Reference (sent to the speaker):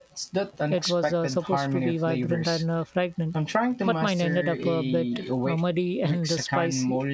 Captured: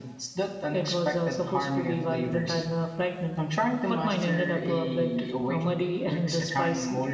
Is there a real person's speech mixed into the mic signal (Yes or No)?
No